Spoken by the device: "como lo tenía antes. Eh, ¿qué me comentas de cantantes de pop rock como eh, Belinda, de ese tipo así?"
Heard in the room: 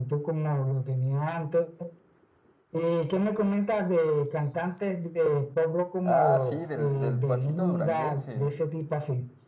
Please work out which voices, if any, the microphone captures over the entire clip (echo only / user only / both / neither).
both